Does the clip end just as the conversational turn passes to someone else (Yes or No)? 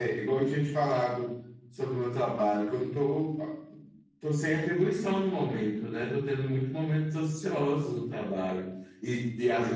No